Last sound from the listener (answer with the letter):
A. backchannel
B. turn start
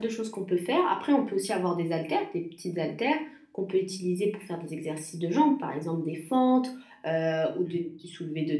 A